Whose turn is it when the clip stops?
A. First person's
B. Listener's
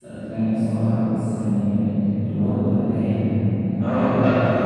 B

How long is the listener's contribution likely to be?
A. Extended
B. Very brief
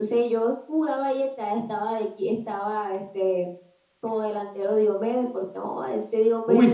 A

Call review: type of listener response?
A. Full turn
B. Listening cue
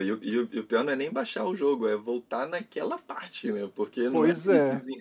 A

